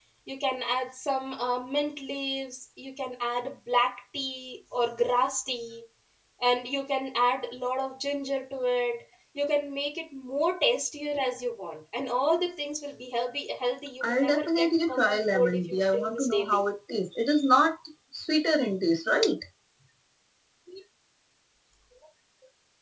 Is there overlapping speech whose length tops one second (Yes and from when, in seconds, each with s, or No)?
Yes, from 14.0 s